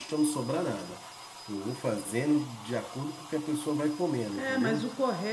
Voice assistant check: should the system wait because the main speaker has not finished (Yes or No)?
No